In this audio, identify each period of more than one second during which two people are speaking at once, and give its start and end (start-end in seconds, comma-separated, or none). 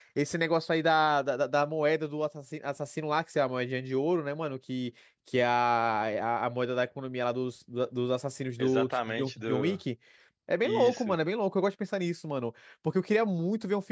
8.6-9.8